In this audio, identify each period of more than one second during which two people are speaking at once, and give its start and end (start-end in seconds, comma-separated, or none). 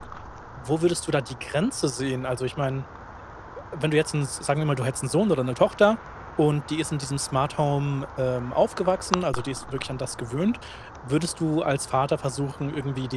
none